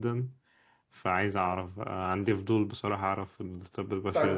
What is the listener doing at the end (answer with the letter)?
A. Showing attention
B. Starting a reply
B